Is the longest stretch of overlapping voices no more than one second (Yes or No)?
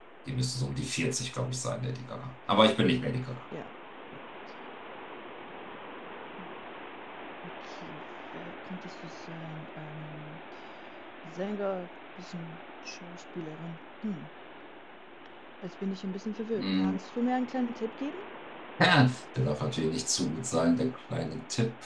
Yes